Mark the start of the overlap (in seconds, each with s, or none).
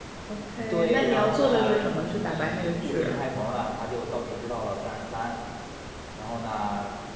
0.7 s